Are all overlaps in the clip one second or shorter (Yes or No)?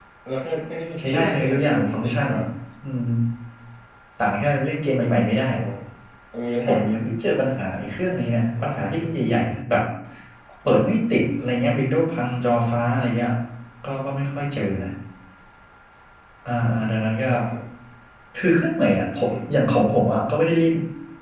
No